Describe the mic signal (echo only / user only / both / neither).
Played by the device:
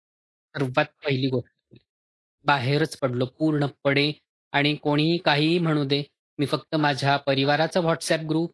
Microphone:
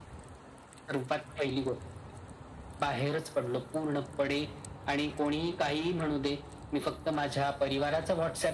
echo only